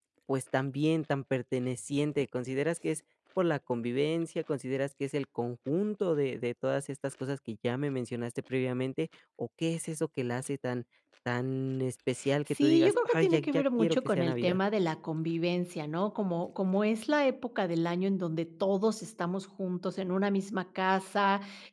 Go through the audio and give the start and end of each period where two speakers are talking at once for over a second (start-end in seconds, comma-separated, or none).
12.5-14.6